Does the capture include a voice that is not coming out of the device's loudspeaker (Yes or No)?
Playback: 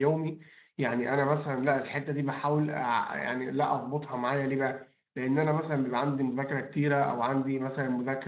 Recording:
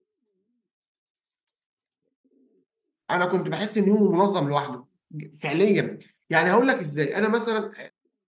Yes